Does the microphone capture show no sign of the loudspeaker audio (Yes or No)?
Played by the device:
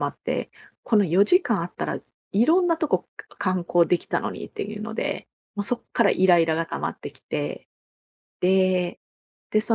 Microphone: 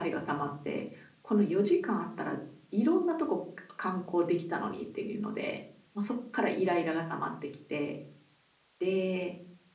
No